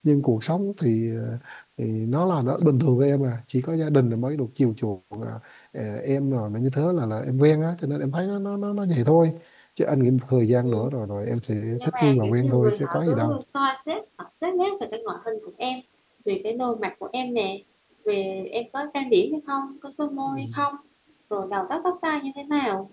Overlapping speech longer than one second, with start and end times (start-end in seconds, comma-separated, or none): 11.7-13.4